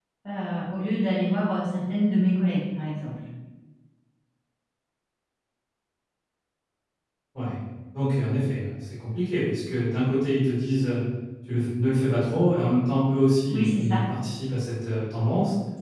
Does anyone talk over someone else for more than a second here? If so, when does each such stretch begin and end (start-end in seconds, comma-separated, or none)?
none